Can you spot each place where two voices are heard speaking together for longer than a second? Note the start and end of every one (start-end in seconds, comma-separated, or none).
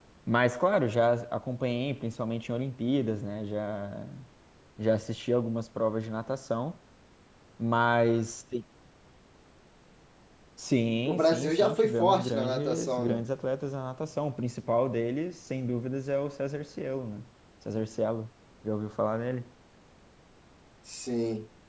11.1-13.2